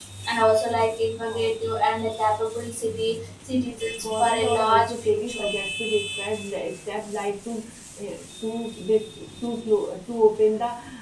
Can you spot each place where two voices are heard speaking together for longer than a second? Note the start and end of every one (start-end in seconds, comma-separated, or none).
4.1-5.4